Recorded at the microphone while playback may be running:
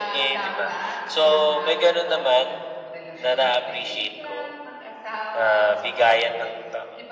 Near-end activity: present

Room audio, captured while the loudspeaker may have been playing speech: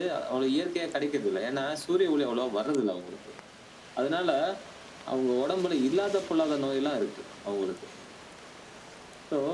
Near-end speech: none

